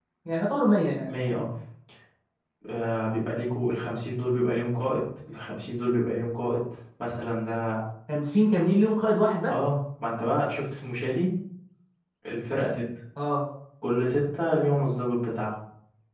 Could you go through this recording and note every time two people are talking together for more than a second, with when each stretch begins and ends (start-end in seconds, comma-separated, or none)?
none